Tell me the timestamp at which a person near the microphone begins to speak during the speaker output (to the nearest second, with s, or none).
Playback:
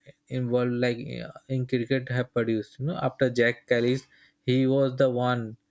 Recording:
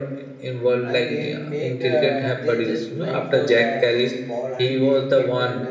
1 s